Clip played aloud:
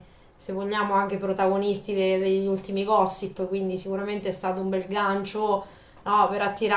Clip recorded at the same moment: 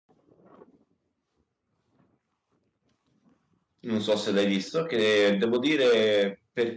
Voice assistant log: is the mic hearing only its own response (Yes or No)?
No